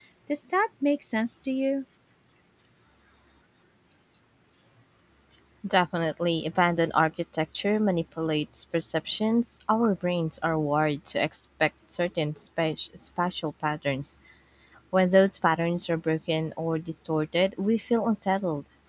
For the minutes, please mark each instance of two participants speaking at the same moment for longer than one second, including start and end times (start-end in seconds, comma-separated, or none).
none